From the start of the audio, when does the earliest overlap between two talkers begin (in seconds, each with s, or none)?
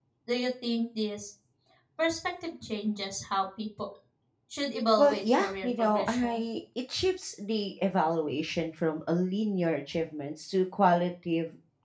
5.0 s